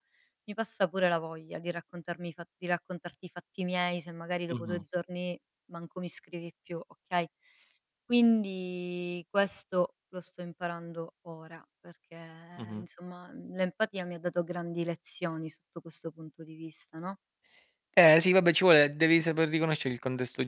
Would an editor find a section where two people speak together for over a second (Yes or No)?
No